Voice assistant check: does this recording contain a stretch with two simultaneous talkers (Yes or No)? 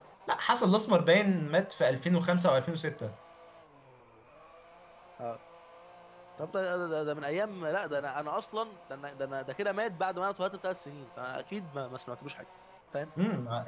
No